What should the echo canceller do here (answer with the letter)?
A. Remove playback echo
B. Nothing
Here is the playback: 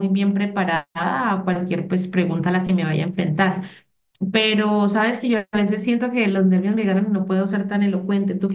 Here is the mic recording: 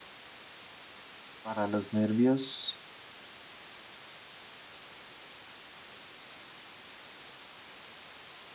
B